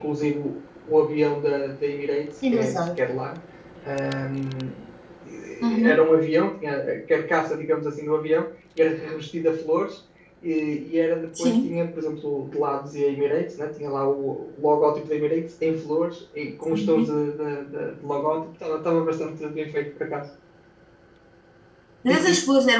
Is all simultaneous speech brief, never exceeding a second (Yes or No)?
Yes